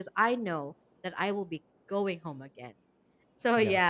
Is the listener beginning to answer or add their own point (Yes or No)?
No